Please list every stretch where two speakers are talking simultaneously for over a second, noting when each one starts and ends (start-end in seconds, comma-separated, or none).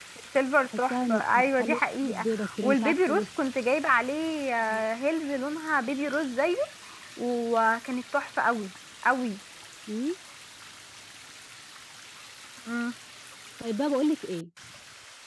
0.9-3.3